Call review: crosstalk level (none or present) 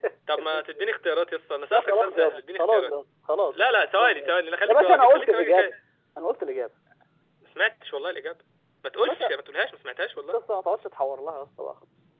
present